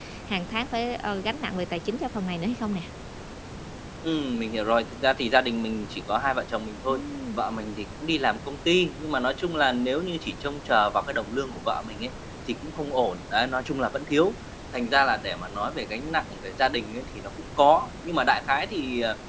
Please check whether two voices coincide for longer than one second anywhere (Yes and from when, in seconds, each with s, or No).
No